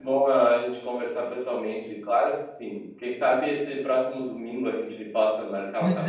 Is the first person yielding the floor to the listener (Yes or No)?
Yes